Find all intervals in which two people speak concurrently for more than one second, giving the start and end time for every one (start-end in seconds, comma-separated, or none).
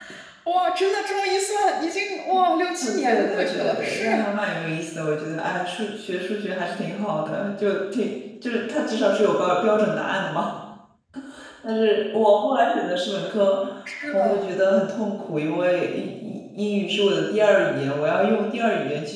2.8-4.3